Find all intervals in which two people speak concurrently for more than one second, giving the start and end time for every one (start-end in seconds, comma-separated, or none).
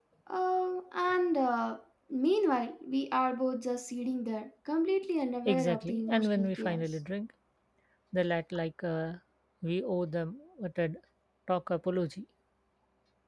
5.4-6.8